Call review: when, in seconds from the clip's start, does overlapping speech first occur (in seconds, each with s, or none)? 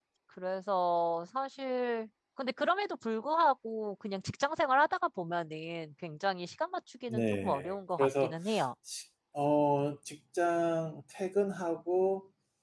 7.1 s